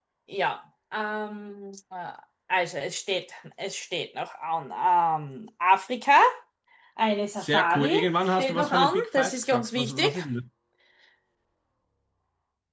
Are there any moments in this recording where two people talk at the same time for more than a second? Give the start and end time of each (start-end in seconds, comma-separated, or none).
7.4-10.1